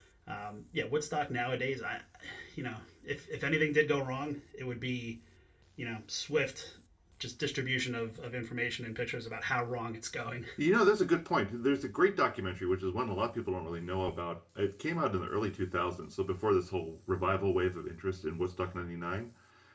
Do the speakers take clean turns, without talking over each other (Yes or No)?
Yes